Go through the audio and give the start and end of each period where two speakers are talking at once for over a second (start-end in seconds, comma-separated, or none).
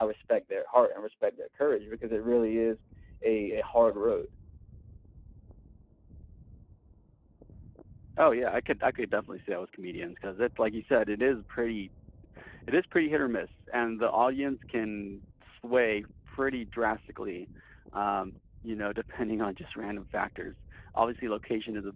none